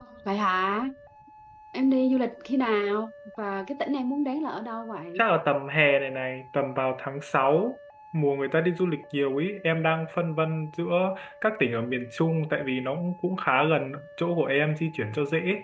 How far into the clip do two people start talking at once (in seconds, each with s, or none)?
none